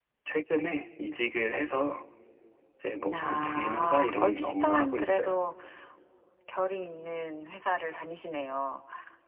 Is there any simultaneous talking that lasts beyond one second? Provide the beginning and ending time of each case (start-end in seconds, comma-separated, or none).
3.1-5.3